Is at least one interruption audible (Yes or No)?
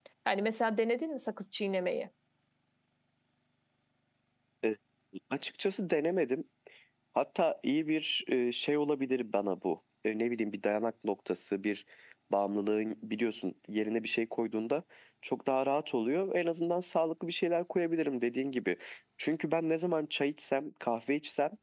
No